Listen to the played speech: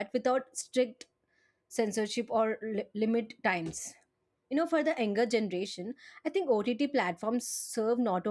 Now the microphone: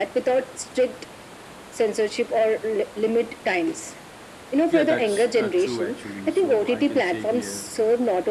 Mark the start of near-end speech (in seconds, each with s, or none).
4.7 s